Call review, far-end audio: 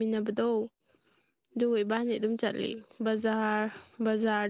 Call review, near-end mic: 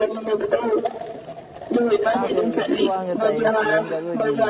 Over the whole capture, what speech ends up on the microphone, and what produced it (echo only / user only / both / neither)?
both